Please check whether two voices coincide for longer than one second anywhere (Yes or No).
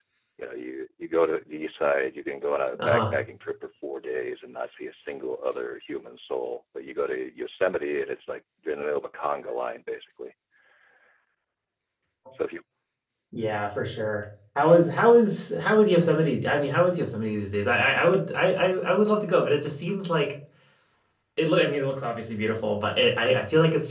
No